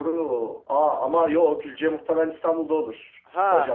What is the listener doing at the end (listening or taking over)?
taking over